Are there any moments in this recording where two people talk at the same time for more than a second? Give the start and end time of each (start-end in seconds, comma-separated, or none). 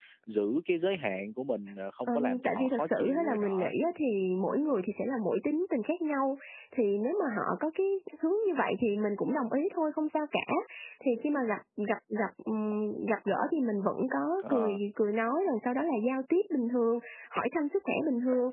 2.1-3.7